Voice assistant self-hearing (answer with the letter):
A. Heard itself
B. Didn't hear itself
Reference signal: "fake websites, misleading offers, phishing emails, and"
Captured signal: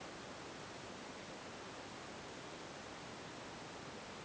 B